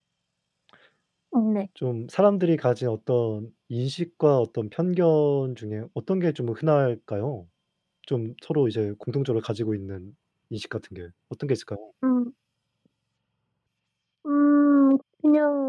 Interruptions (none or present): none